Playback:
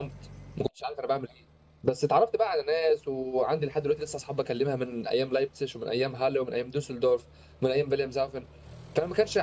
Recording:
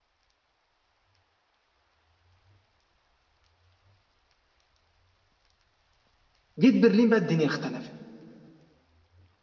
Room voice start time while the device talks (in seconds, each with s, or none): 6.6 s